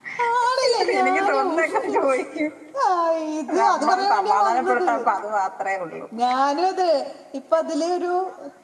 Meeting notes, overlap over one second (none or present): present